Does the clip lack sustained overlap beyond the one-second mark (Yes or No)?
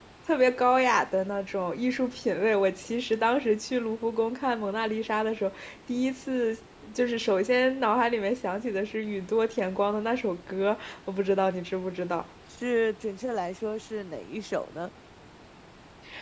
Yes